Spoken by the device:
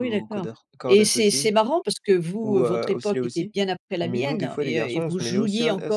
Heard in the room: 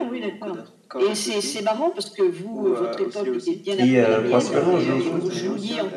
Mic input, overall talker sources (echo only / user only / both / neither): both